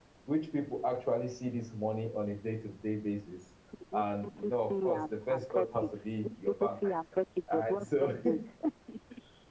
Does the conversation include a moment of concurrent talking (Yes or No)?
Yes